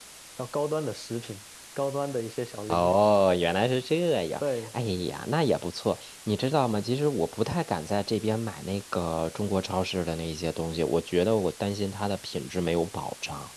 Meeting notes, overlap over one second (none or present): none